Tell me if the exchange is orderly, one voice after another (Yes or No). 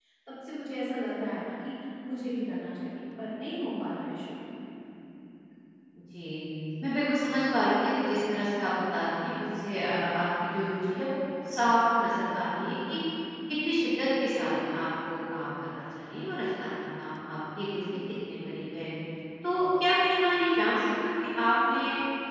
Yes